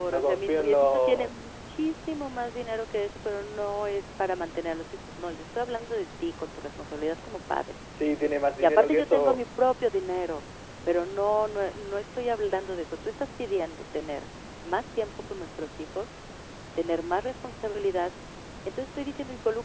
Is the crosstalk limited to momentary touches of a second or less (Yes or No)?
No